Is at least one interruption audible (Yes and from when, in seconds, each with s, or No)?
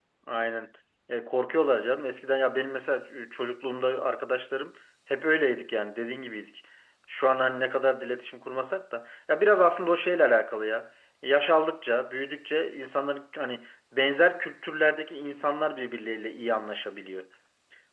No